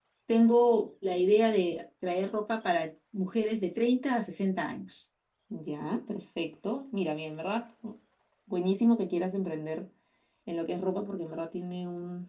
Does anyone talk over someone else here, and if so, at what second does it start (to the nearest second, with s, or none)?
none